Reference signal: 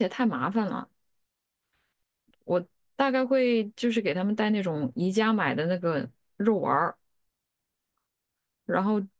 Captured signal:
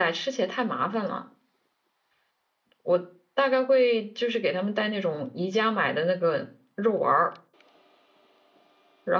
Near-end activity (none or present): none